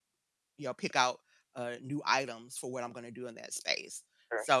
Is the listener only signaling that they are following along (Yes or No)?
Yes